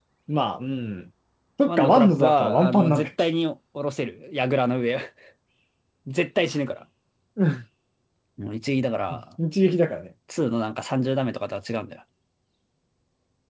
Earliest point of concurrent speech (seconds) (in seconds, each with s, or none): 1.7 s